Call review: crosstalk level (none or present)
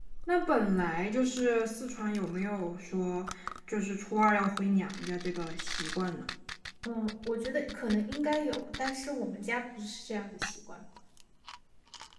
none